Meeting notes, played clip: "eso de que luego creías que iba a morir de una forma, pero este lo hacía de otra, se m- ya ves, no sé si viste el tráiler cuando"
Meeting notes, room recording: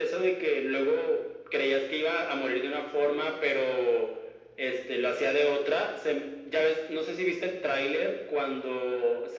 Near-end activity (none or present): none